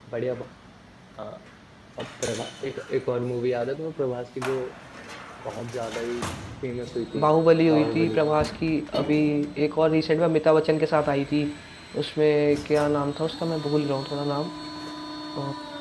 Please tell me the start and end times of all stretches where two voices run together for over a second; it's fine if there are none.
none

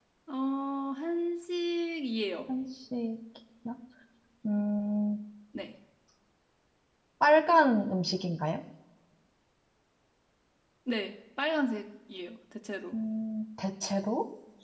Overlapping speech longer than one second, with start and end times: none

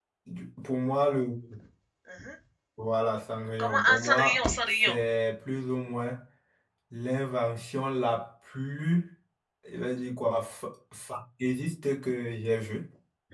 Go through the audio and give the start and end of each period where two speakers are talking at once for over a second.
3.6-5.0

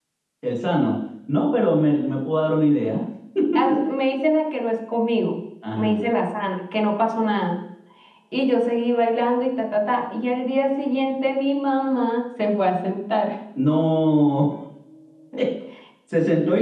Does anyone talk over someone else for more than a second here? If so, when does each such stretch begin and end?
none

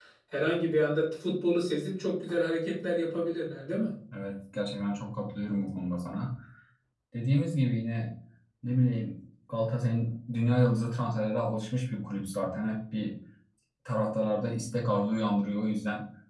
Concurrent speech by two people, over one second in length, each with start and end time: none

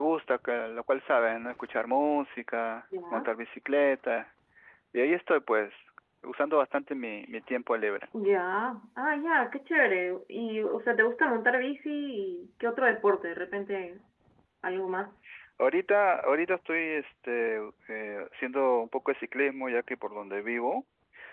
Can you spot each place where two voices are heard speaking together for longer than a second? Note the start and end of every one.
none

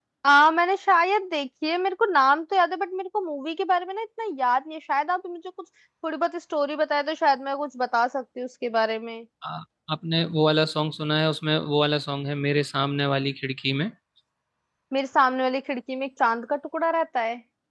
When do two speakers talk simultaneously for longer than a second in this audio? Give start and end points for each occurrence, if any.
none

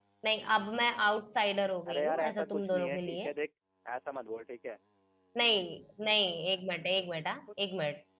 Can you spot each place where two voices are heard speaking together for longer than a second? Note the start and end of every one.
1.9-3.3

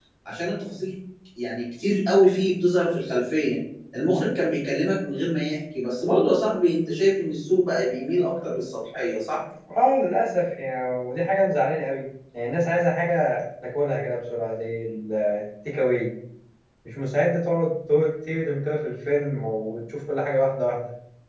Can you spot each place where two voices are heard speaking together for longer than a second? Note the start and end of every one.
none

